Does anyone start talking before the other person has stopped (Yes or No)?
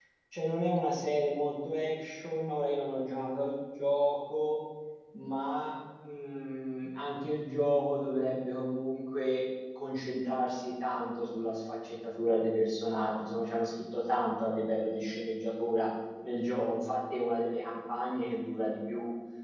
No